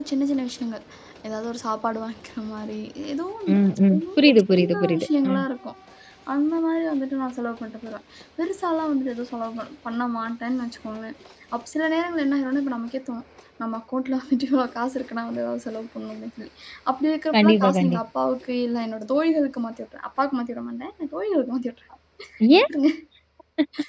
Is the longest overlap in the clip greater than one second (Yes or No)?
Yes